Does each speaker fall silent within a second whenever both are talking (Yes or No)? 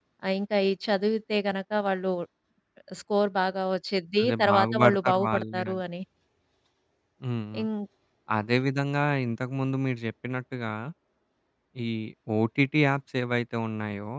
No